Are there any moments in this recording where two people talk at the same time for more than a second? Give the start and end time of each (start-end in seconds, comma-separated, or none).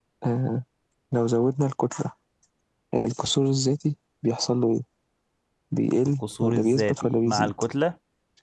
6.2-7.5